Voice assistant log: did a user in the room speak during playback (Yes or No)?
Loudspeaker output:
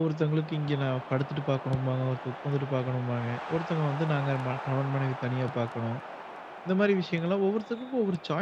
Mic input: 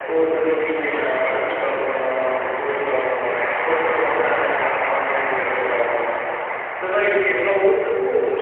No